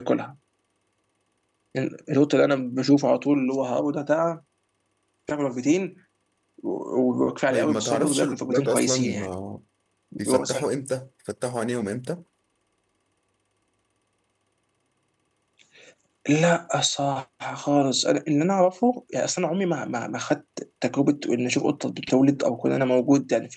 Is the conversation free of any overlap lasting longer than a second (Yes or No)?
No